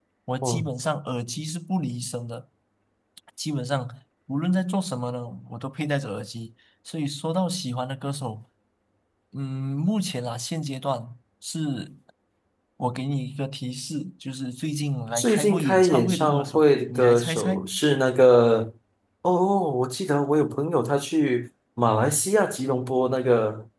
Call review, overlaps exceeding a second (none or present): present